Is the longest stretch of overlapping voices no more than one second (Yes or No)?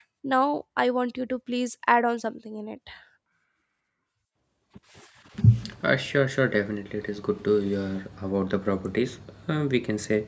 Yes